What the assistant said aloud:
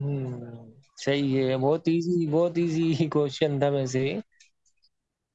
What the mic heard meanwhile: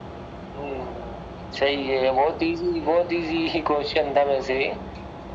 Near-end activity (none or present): none